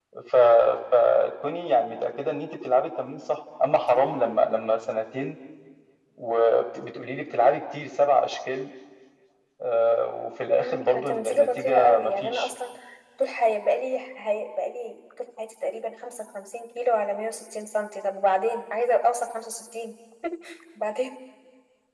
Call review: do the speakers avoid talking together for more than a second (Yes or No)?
No